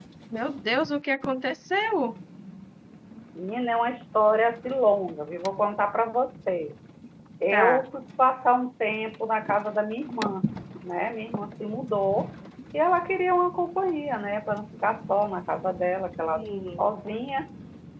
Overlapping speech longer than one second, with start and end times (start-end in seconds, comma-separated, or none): none